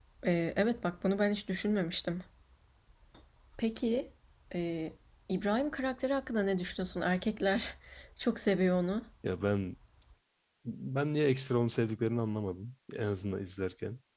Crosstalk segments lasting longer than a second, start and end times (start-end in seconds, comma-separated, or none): none